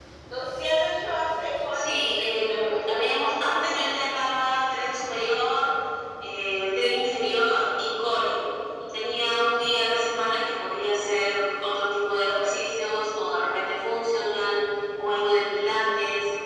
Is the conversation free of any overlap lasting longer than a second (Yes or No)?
No